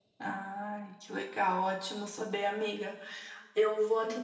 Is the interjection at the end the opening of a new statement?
No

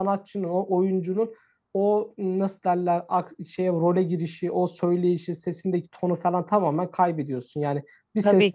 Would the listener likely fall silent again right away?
Yes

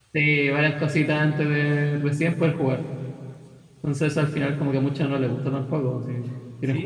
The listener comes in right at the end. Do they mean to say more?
Yes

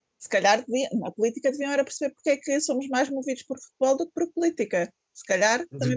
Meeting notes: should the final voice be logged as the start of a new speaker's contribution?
Yes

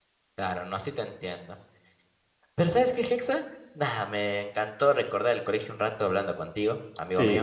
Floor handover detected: Yes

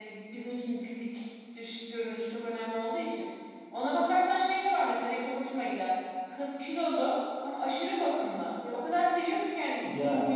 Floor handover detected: No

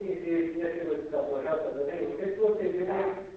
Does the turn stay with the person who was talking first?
Yes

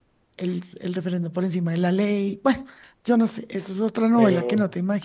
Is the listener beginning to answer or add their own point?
Yes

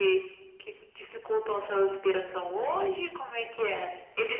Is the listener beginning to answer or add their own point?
Yes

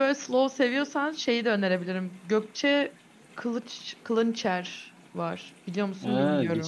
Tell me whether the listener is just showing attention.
No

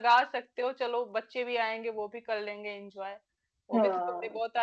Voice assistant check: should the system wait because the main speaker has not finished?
Yes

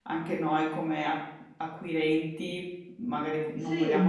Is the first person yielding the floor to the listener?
No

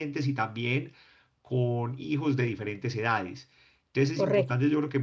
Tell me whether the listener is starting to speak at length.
No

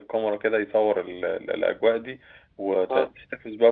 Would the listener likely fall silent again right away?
Yes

